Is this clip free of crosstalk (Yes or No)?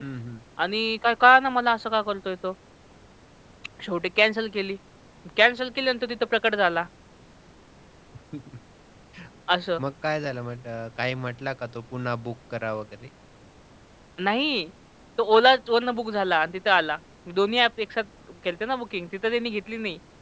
Yes